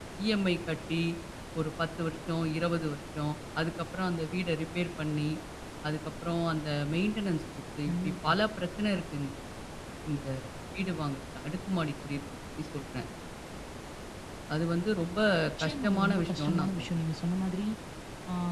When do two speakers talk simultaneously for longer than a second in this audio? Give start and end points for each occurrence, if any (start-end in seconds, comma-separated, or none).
15.6-16.9